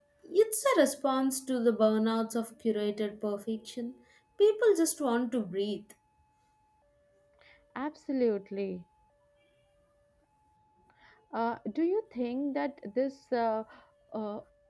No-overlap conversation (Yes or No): Yes